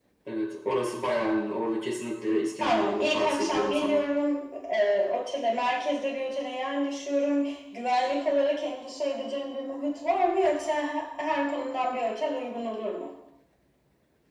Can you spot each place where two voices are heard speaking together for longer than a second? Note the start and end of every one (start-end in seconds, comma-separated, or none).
2.6-4.0